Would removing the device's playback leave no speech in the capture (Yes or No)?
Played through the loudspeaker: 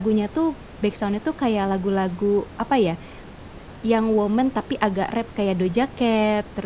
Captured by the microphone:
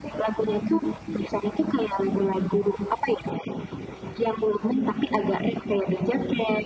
Yes